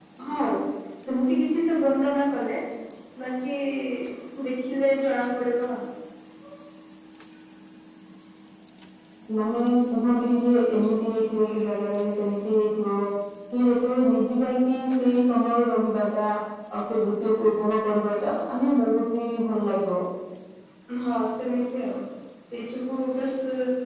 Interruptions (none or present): none